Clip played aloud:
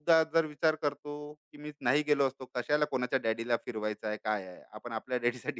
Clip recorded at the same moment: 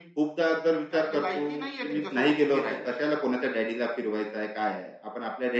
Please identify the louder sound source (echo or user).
echo